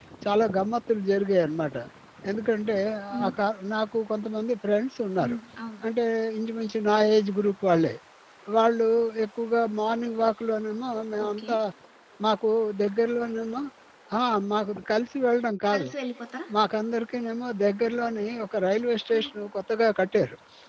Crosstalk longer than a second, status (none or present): none